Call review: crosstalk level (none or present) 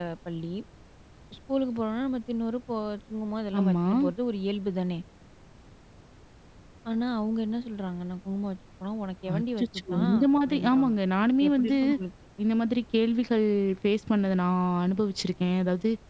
present